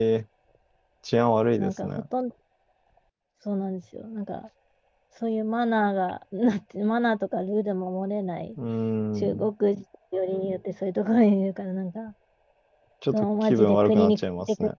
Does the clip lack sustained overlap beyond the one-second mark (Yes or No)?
No